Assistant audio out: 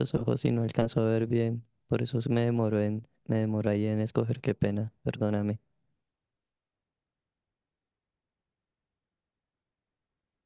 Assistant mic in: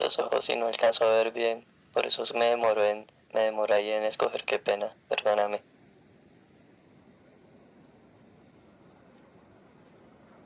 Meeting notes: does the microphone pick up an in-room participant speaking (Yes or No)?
No